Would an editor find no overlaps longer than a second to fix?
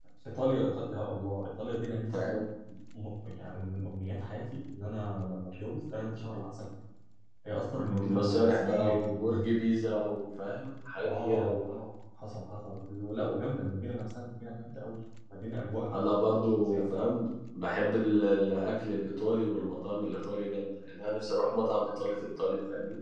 No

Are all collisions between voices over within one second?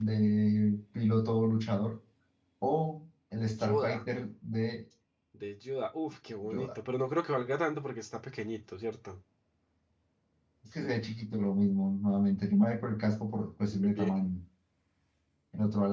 Yes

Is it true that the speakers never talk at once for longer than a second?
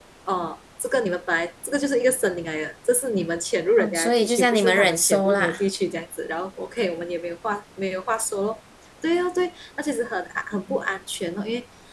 No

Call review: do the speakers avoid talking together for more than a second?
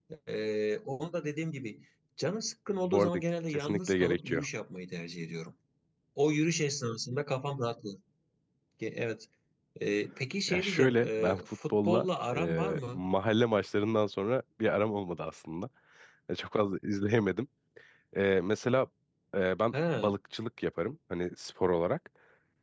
No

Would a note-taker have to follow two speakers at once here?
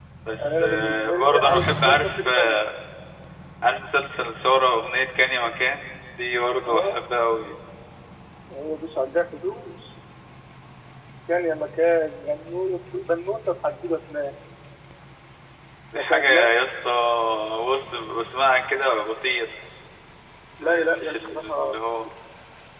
Yes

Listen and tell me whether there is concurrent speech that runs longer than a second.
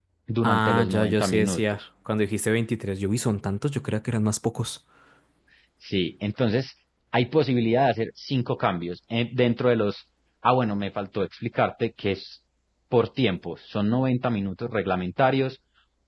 Yes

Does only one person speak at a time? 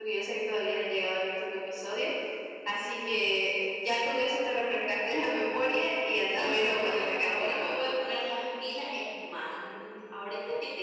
No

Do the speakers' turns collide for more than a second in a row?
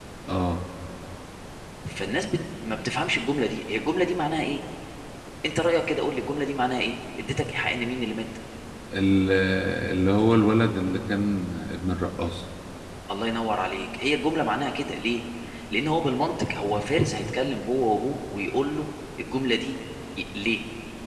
No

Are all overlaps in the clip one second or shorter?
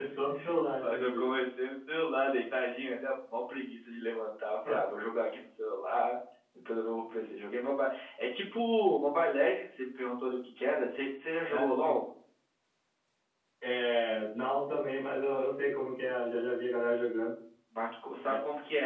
Yes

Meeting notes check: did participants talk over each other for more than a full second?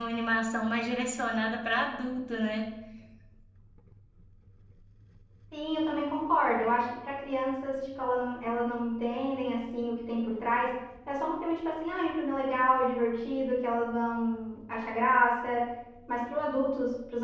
No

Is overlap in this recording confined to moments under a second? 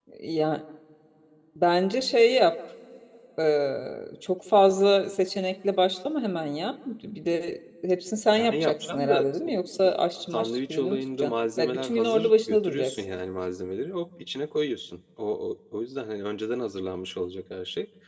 No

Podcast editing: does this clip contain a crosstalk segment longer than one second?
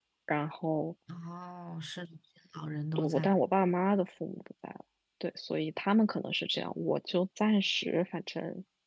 No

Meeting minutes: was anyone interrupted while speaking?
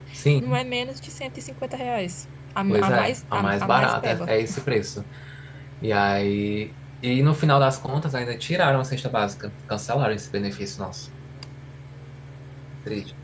Yes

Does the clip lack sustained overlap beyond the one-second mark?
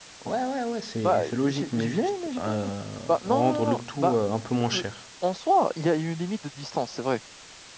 No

